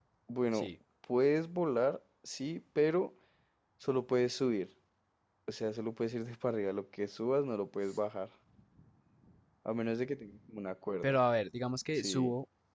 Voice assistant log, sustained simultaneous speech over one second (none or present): none